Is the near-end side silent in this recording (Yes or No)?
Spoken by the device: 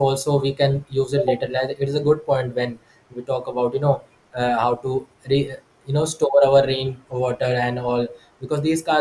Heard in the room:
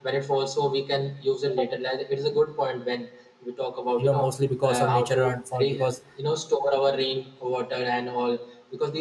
No